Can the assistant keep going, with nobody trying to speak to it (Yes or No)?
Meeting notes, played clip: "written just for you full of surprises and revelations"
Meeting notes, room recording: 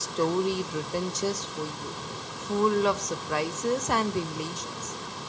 Yes